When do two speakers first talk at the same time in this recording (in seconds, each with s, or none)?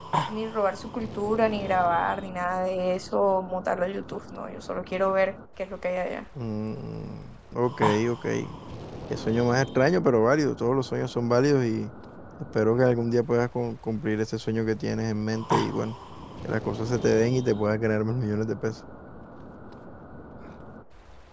none